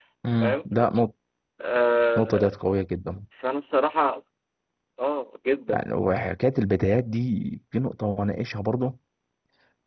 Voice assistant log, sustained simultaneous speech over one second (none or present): none